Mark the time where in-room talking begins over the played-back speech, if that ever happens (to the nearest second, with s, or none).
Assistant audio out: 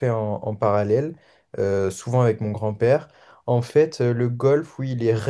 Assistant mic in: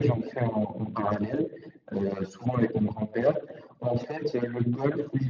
none